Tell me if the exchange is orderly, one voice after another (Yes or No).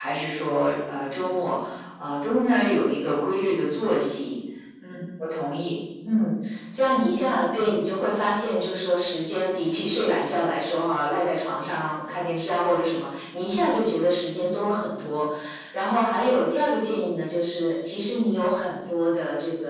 Yes